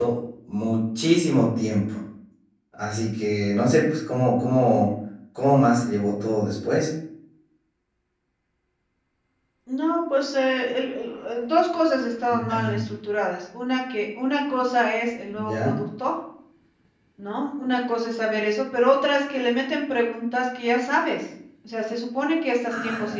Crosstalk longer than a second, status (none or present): none